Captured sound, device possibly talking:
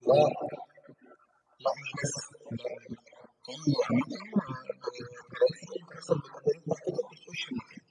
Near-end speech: none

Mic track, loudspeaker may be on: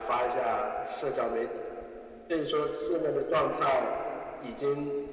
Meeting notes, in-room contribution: none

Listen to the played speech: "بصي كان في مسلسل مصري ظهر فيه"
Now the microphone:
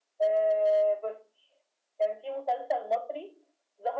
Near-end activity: none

